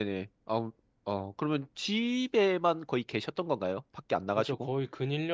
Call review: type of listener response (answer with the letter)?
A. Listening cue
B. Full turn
B